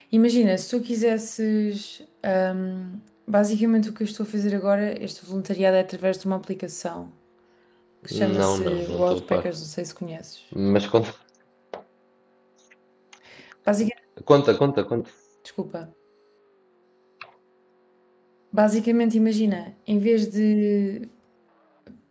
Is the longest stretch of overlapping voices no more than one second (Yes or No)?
No